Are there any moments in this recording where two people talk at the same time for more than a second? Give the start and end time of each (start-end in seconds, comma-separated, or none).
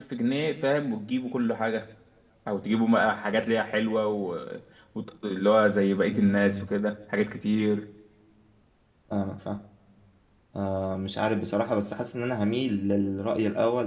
none